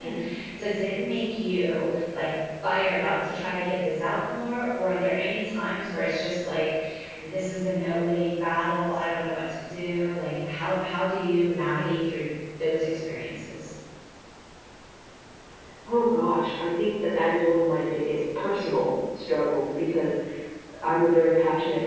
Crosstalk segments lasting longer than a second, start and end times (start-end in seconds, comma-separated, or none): none